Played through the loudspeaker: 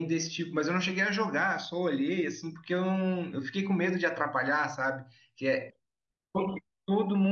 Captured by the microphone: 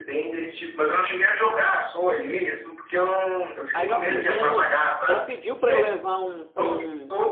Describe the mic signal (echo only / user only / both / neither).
both